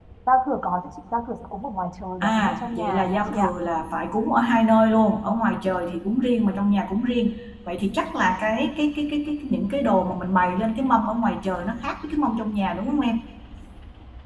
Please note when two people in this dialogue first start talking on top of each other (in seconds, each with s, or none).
2.2 s